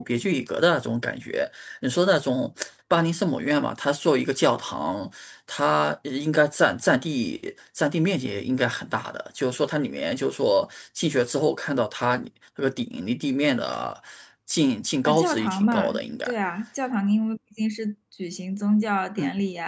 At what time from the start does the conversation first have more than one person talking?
15.0 s

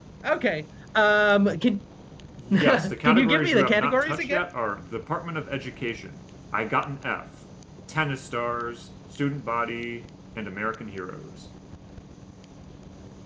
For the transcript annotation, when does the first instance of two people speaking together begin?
2.5 s

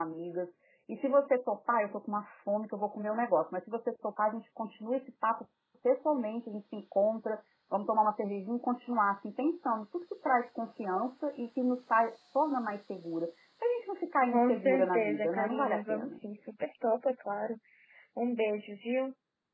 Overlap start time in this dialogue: 14.3 s

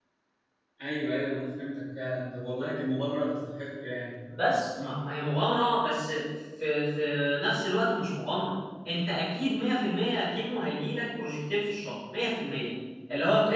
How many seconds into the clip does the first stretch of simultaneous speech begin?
none

